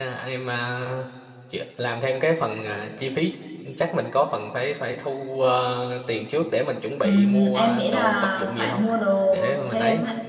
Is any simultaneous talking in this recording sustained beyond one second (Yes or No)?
Yes